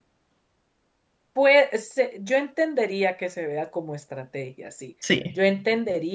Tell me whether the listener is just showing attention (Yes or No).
Yes